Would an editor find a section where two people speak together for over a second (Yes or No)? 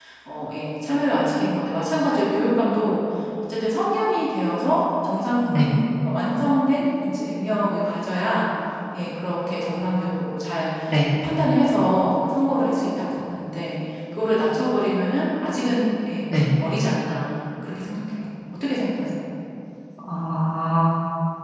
No